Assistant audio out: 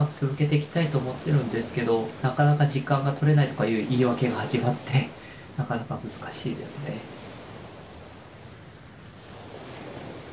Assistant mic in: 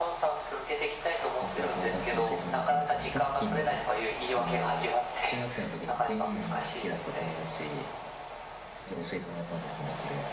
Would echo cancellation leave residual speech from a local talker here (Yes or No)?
Yes